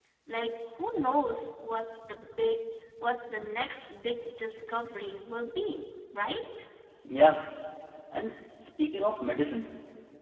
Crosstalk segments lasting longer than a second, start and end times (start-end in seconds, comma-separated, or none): none